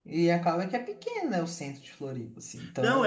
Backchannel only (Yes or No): No